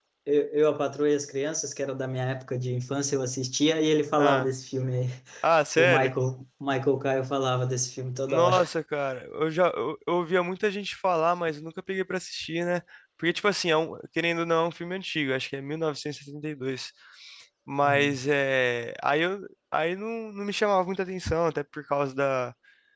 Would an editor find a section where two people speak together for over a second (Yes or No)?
No